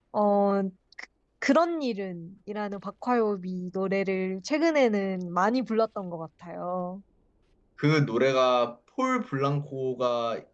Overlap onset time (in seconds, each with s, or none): none